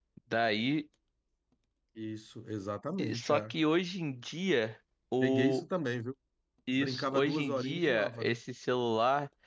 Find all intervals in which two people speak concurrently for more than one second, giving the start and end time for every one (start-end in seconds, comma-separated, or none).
6.8-8.3